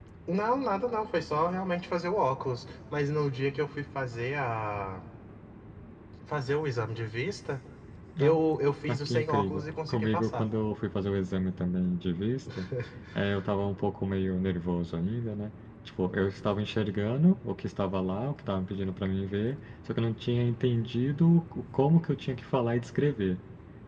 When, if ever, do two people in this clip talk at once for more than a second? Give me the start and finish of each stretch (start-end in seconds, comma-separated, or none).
8.9-10.5